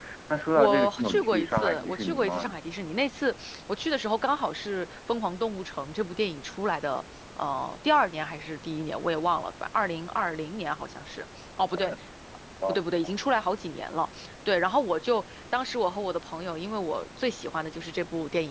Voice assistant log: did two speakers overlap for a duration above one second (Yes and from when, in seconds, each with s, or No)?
Yes, from 0.6 s